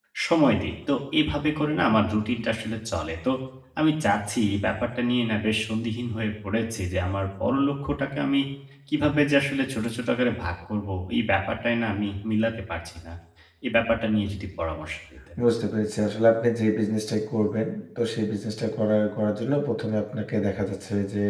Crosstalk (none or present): none